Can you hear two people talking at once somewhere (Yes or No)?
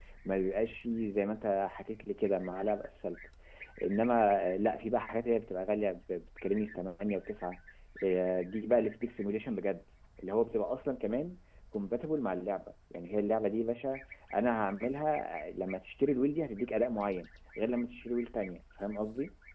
No